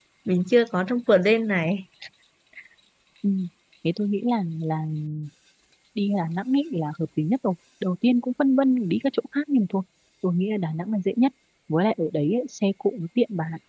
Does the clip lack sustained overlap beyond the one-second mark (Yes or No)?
Yes